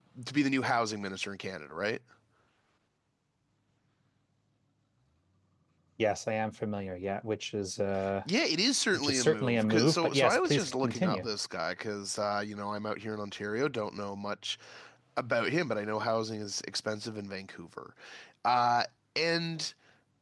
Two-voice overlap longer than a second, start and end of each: 8.9-11.3

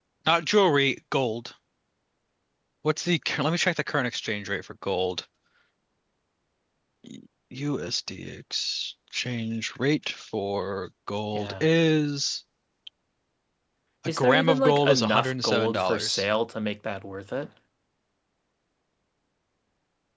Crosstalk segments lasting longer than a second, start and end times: 14.1-16.3

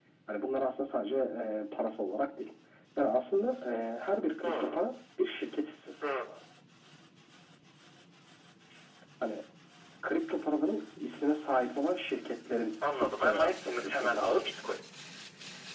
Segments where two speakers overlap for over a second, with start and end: 13.0-14.4

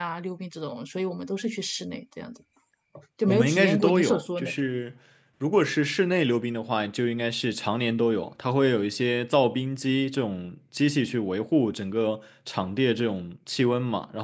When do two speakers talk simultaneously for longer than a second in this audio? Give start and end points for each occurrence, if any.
3.3-4.6

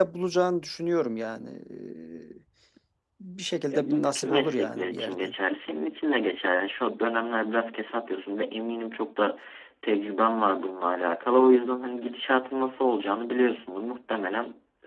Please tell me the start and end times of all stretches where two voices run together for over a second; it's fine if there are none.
3.7-5.4

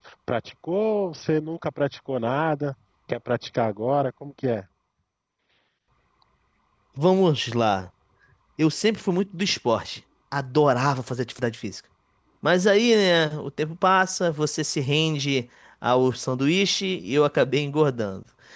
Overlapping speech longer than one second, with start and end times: none

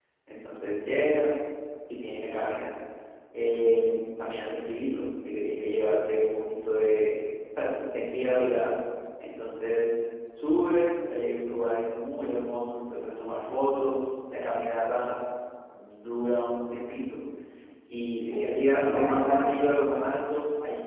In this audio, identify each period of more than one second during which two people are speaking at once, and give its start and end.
18.3-19.8

